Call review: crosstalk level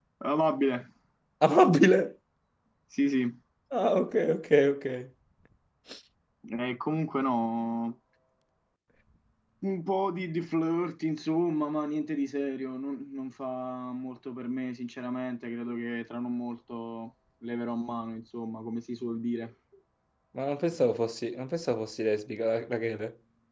none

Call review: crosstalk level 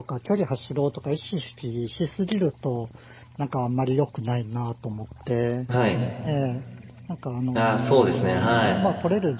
present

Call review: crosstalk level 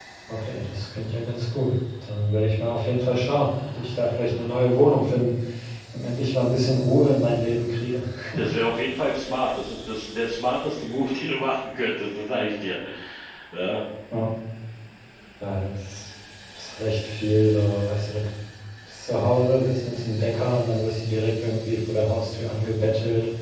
none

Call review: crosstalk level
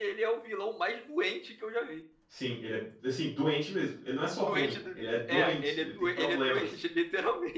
present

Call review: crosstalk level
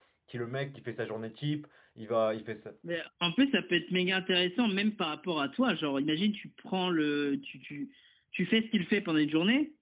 none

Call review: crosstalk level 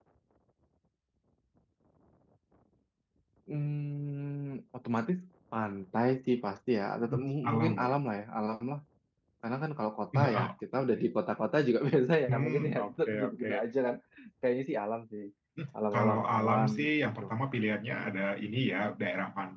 present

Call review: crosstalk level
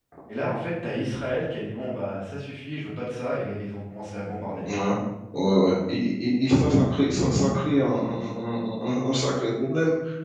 none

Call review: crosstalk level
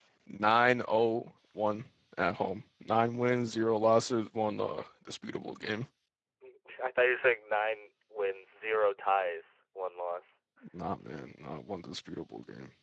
none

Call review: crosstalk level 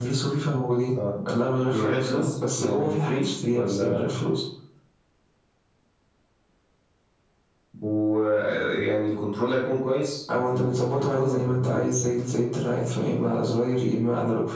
present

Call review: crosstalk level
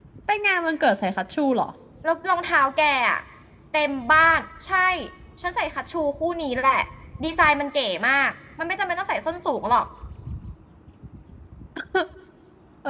none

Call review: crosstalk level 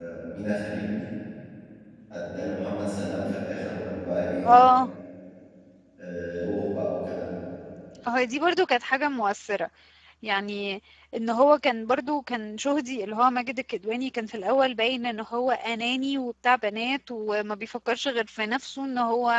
none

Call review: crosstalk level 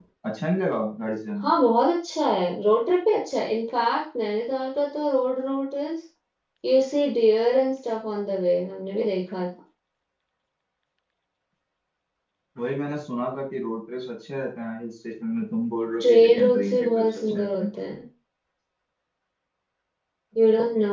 present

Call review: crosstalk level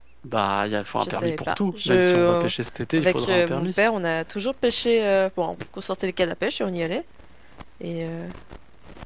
present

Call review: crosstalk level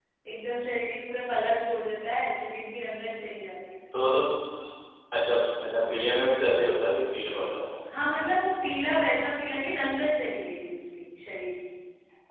none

